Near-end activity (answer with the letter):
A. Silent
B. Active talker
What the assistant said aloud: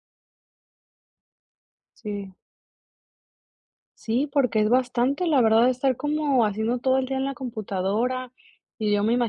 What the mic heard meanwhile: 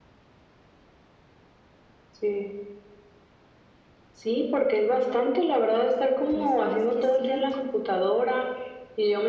B